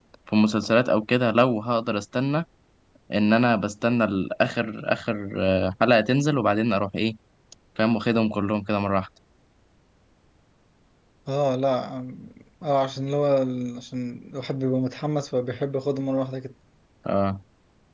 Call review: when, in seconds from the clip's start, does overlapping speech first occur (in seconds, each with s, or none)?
none